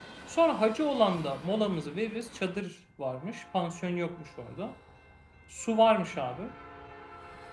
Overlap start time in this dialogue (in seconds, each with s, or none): none